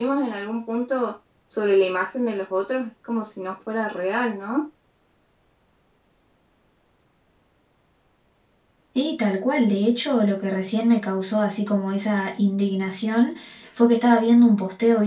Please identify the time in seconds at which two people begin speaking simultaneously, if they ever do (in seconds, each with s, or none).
none